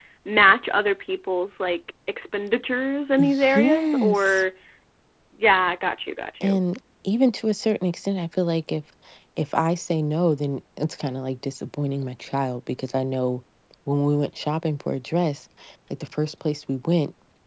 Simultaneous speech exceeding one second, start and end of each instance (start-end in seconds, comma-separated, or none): 3.2-4.4